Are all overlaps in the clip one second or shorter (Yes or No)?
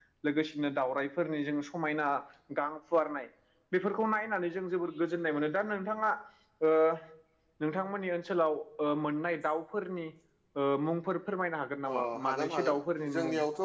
No